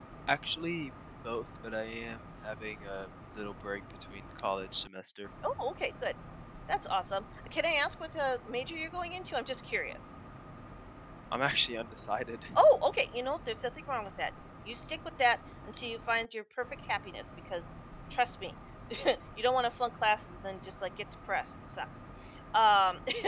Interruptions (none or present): none